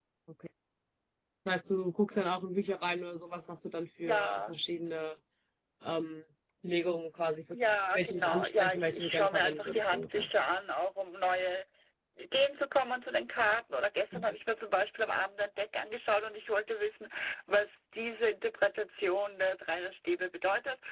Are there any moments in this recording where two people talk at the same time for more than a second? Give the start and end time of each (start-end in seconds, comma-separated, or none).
7.9-10.3